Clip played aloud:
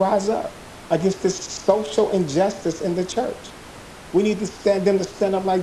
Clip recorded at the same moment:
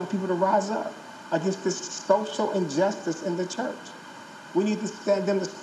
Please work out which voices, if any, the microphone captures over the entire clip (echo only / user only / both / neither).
echo only